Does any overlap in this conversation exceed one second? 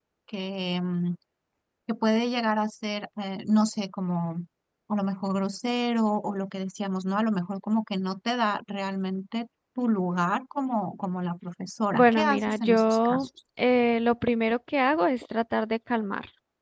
Yes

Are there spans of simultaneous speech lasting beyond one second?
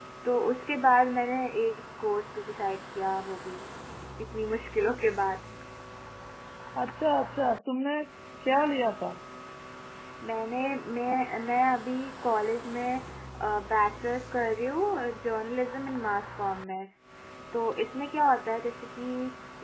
No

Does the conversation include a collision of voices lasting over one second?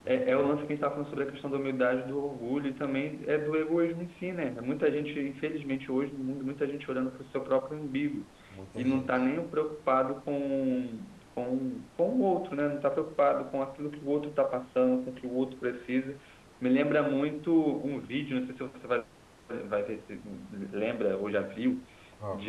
No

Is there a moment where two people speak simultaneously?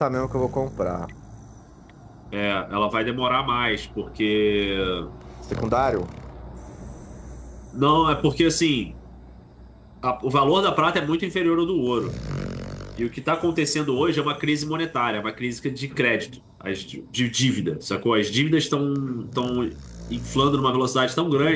No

